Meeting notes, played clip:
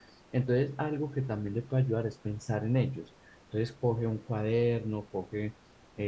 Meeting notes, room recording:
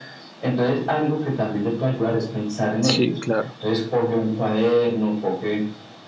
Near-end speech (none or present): present